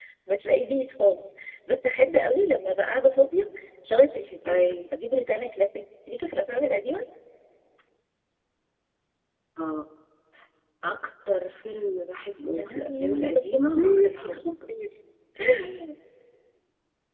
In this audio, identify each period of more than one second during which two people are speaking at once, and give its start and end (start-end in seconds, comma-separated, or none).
12.5-14.4